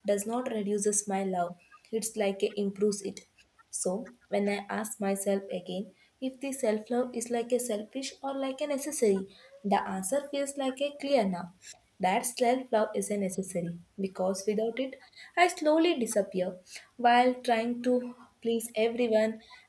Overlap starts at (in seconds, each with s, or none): none